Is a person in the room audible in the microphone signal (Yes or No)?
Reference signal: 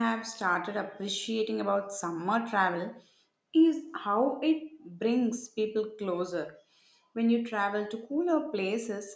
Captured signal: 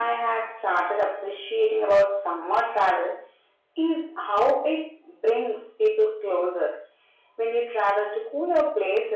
No